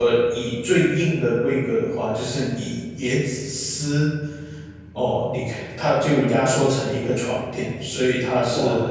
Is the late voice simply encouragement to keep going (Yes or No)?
Yes